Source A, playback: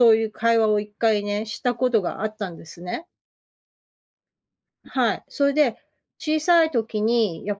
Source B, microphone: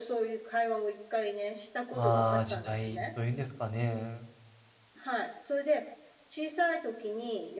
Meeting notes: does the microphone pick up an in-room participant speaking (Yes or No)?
Yes